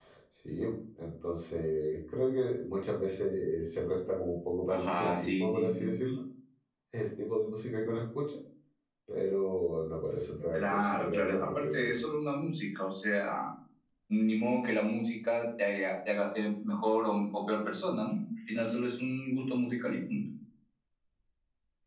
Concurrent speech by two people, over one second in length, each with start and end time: 4.7-5.9, 10.5-11.9

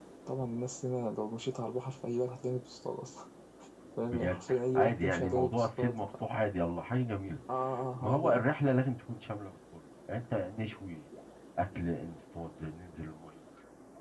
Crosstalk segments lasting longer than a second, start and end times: 4.1-5.9

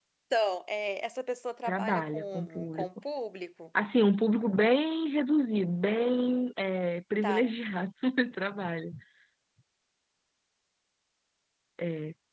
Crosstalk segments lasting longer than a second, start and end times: 1.6-2.9

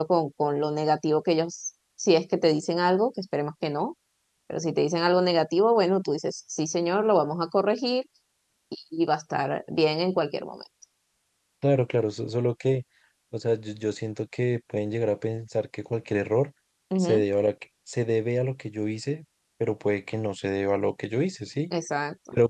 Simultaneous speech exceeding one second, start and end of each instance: none

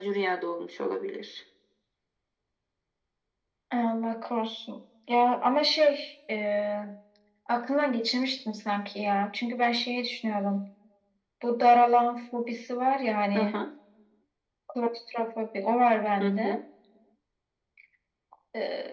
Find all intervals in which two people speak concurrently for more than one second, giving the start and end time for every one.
none

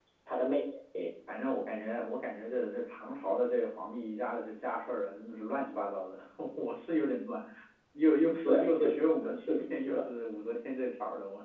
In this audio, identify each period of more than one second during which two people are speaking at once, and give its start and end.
8.4-10.1

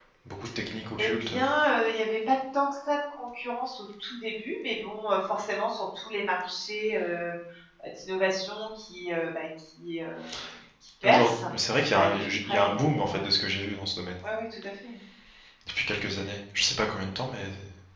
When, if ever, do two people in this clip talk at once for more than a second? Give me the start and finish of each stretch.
11.9-13.2

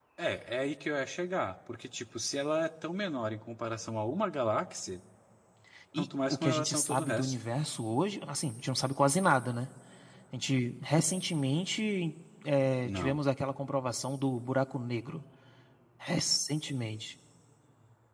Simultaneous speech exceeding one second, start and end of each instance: 6.0-7.3

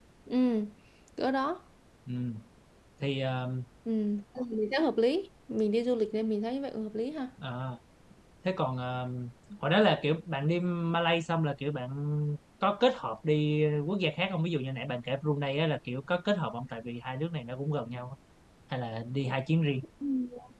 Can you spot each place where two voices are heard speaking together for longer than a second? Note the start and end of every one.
none

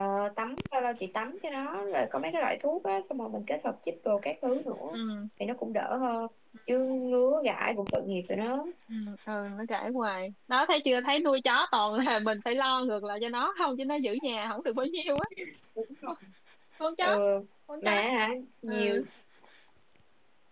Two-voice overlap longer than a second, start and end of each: none

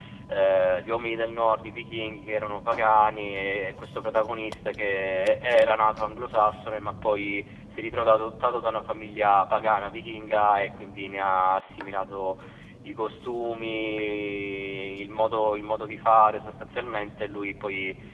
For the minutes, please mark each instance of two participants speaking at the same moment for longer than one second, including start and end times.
none

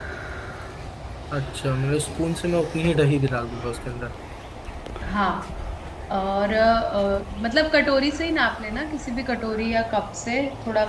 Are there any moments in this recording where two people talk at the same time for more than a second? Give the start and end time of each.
none

